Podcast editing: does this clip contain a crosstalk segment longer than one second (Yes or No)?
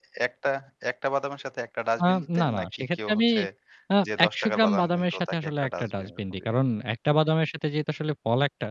Yes